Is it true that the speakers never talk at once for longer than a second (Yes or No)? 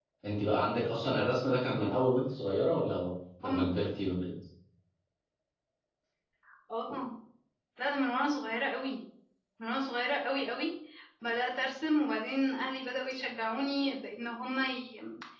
Yes